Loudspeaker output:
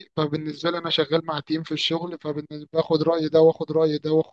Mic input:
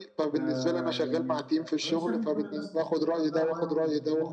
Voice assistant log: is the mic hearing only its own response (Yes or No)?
No